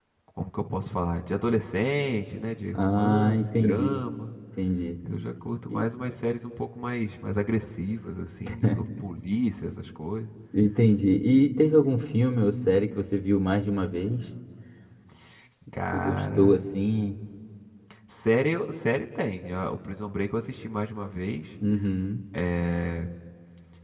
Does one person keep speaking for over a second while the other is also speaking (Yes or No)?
Yes